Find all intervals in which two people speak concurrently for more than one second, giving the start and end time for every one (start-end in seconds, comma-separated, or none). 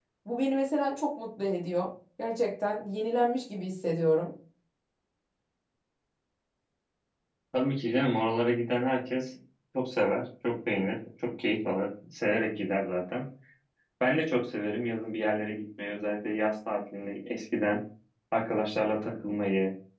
none